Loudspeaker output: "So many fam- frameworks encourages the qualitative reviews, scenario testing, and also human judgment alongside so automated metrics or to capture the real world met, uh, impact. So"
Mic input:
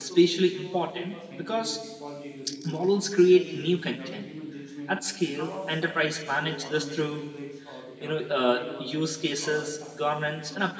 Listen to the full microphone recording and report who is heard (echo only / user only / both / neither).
both